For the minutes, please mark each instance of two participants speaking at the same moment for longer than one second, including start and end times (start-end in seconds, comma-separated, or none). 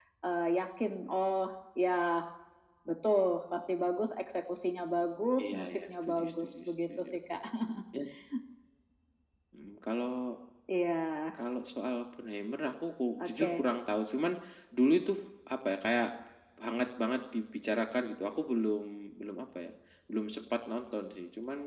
5.4-7.1